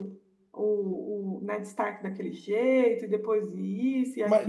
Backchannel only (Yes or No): No